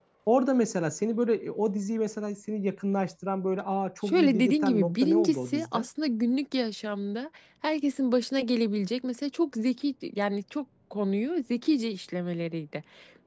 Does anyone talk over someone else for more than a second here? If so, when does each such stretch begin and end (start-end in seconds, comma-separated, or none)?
4.0-5.9